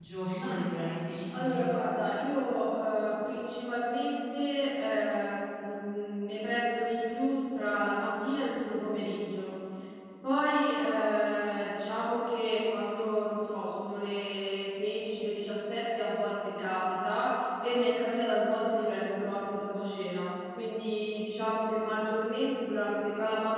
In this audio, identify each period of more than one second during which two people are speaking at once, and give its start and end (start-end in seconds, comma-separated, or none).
none